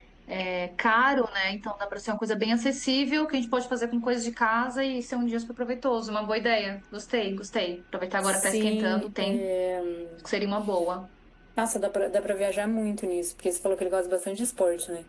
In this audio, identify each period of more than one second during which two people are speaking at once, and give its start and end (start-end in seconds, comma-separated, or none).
8.2-9.4